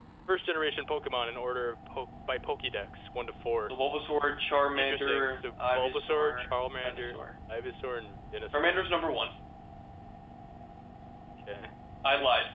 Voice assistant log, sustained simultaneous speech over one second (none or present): present